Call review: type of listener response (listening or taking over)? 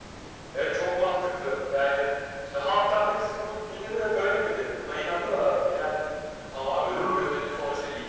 listening